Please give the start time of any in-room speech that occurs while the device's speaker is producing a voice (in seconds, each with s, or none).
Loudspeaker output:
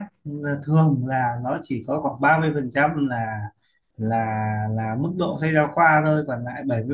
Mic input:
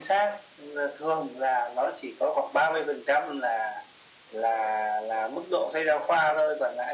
none